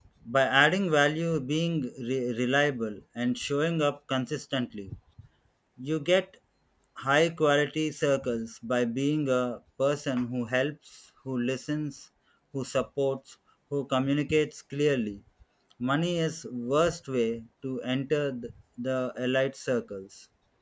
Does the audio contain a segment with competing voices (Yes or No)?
No